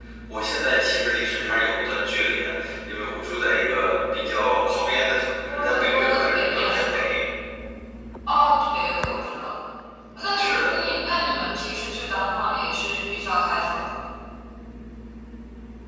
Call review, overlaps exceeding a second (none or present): present